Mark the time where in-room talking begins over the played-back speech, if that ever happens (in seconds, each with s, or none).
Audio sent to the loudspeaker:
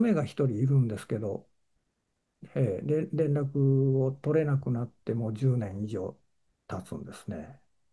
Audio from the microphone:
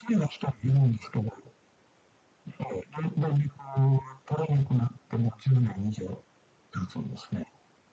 none